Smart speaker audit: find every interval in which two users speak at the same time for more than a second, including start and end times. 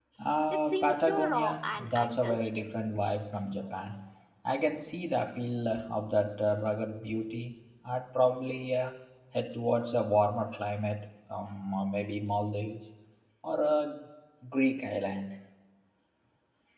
0.7-2.5

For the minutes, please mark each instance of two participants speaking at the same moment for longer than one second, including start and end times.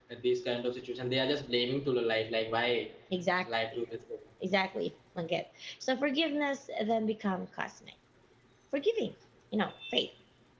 none

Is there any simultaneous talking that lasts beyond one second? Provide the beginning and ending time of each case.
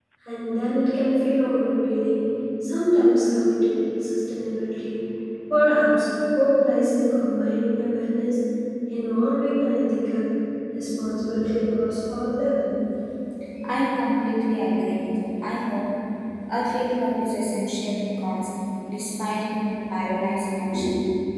none

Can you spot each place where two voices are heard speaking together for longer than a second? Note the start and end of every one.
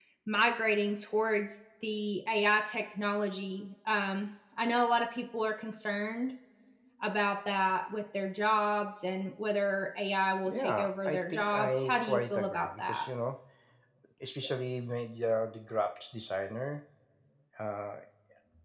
10.4-13.1

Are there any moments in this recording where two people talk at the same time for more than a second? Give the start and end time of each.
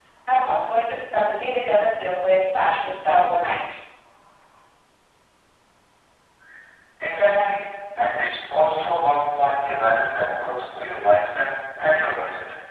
none

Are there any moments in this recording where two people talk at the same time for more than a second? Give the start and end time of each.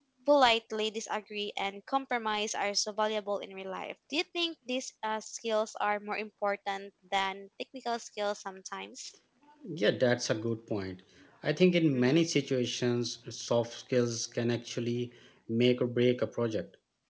none

